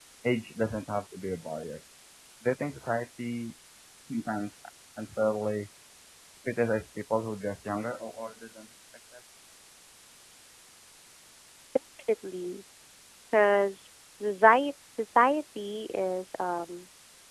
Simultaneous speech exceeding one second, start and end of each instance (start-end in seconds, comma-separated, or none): none